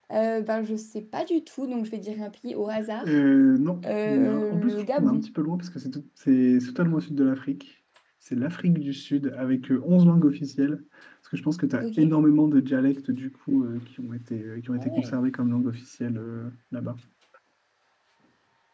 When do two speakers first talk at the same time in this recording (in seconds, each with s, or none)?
3.9 s